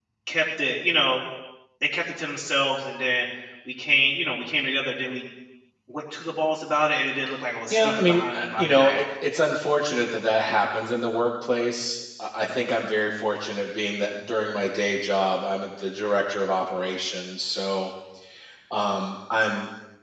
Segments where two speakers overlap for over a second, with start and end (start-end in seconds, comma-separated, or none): 7.7-9.0